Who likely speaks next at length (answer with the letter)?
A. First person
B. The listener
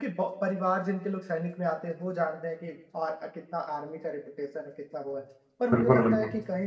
A